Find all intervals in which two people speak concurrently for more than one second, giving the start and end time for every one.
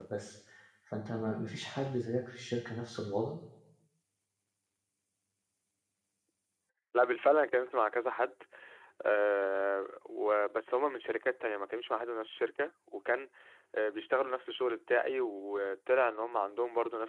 none

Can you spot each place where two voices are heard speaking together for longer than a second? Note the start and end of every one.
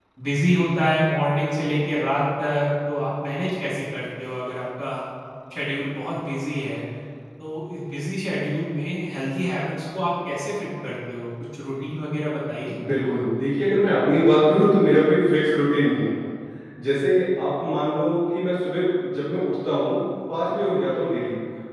none

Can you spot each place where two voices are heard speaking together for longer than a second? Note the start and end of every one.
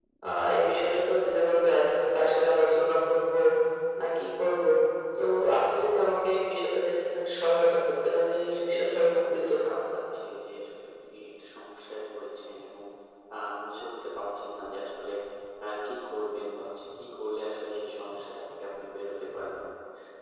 8.5-9.8

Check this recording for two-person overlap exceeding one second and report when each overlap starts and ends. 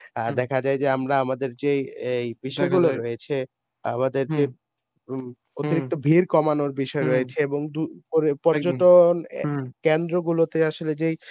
none

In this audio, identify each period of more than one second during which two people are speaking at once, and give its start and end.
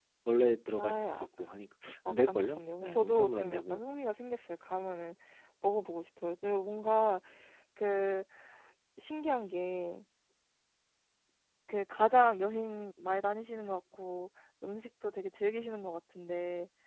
2.1-3.8

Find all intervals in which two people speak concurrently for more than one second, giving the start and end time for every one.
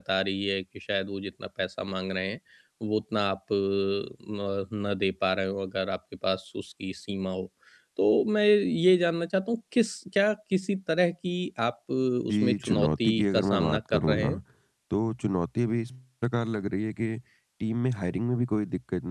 12.3-14.3

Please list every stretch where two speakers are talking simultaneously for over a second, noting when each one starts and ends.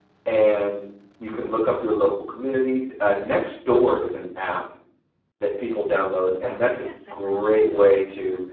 6.4-7.8

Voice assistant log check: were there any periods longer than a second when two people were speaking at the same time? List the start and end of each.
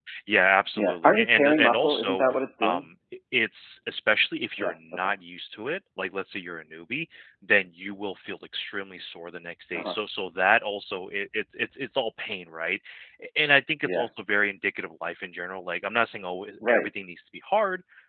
0.8-2.2

